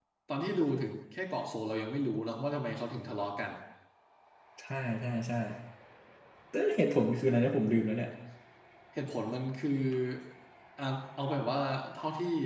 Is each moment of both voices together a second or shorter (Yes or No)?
Yes